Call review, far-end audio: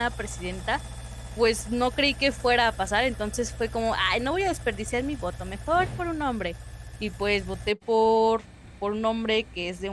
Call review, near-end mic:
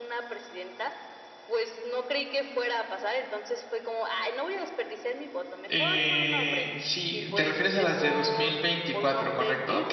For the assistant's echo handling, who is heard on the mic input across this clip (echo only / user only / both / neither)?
both